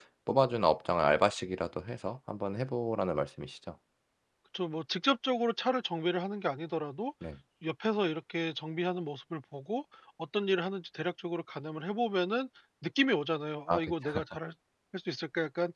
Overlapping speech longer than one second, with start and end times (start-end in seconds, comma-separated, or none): none